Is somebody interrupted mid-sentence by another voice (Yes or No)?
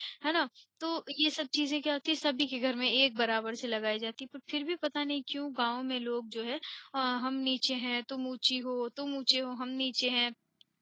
No